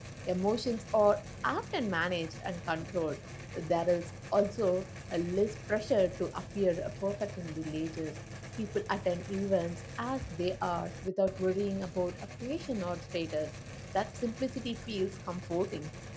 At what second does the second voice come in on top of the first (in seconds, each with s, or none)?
none